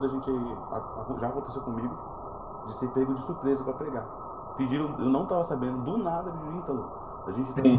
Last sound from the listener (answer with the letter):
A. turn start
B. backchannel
B